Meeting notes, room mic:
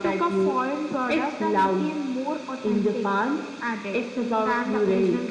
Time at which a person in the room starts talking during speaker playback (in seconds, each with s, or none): none